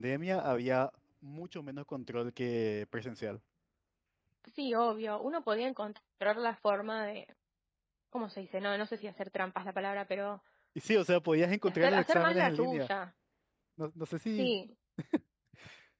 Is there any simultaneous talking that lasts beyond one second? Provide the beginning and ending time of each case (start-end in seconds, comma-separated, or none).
11.7-12.9